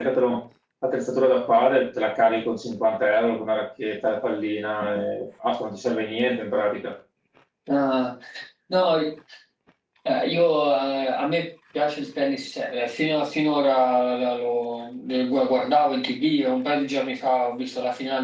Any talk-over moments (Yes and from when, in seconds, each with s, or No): No